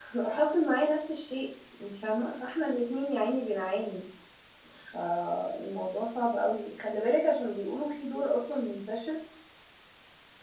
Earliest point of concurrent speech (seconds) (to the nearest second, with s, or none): none